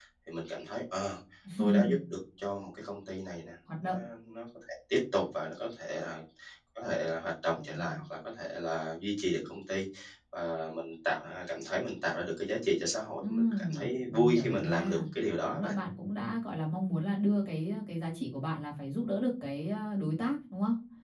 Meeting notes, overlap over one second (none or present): present